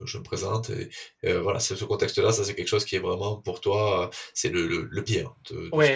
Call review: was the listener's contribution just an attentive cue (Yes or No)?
No